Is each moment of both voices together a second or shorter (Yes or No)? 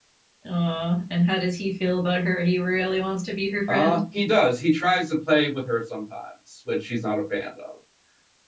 Yes